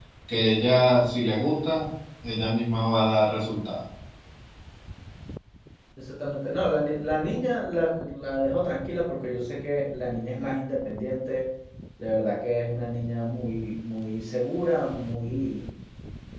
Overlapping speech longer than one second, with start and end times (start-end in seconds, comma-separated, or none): none